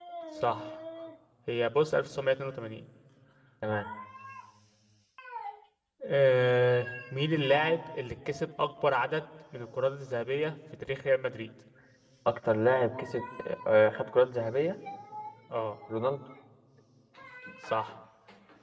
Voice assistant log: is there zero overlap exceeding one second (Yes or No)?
Yes